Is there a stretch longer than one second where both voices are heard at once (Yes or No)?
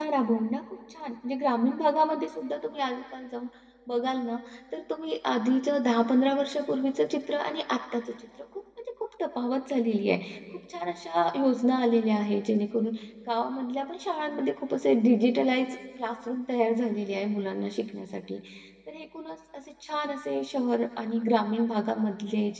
No